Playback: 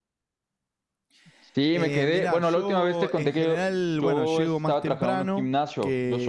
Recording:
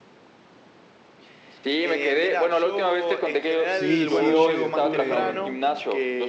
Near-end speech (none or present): present